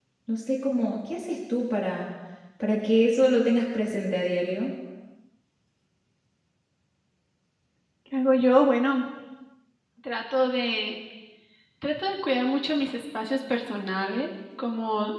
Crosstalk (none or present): none